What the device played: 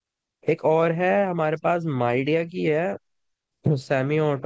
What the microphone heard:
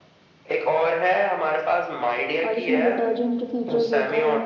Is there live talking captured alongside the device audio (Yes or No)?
Yes